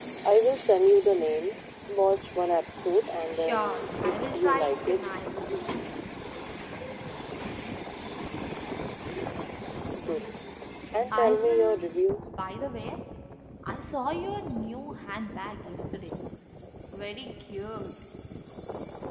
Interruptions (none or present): present